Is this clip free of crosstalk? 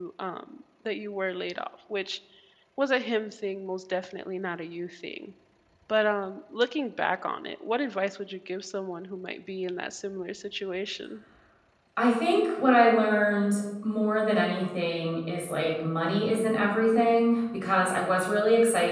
Yes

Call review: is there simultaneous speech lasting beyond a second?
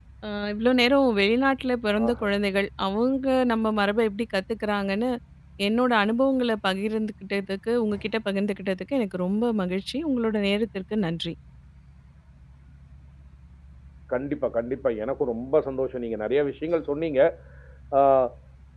No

